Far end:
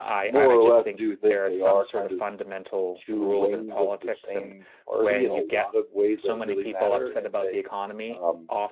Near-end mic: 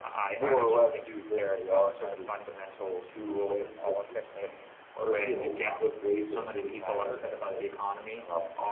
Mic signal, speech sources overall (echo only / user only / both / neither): echo only